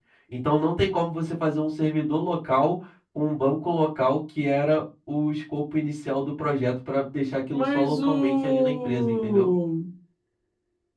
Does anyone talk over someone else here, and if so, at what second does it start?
7.5 s

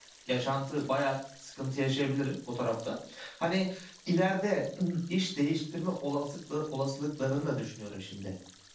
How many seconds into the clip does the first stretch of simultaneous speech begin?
none

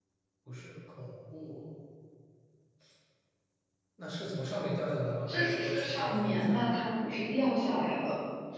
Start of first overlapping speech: 5.3 s

